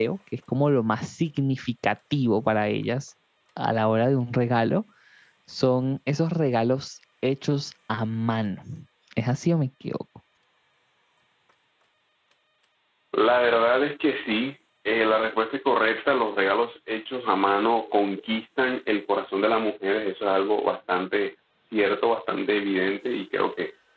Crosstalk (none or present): none